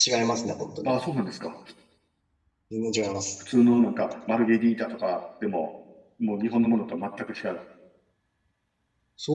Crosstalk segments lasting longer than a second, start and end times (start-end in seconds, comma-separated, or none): none